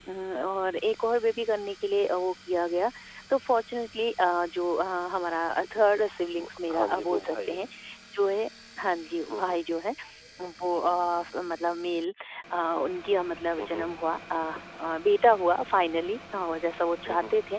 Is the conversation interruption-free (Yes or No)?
No